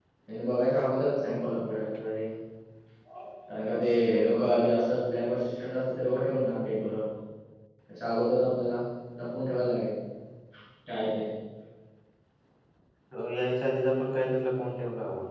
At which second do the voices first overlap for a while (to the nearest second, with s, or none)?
none